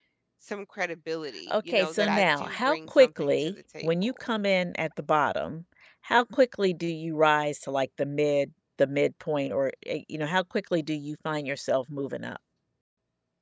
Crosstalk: present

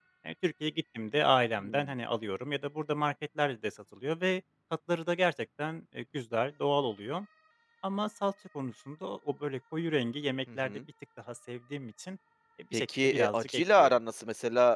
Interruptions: present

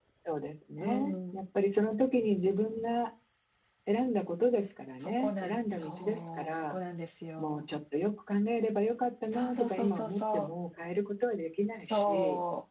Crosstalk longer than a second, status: present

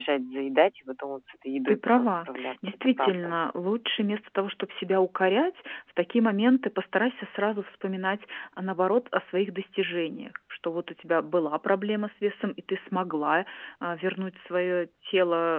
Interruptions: present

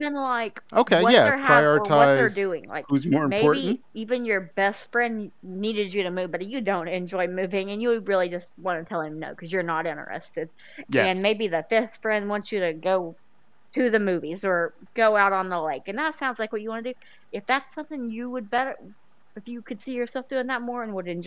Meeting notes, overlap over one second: present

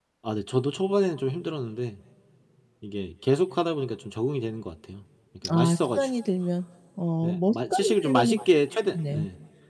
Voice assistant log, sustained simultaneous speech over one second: present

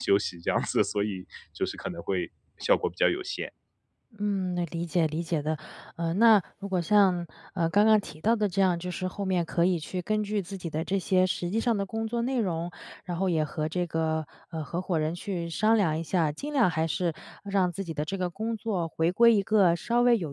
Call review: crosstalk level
none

